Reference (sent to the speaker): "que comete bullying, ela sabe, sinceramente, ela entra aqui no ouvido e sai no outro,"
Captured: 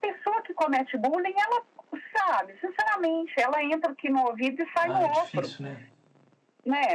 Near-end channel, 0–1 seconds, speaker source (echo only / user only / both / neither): echo only